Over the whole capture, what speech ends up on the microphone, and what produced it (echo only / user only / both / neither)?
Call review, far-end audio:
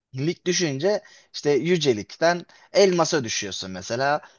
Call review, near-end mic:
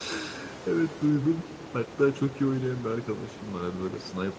user only